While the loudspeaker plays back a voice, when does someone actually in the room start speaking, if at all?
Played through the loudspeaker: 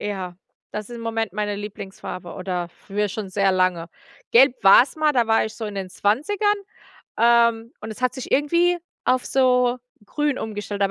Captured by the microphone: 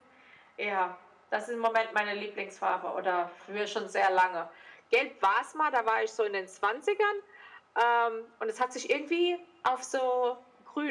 none

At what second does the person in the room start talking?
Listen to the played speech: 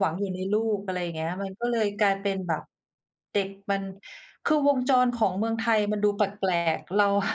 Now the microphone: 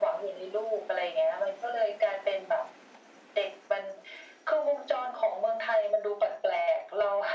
none

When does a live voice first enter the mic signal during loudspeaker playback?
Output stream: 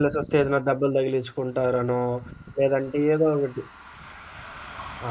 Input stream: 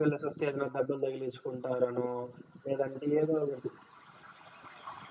none

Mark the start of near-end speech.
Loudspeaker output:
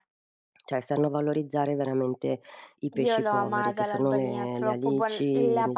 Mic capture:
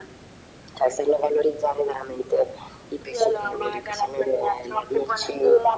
none

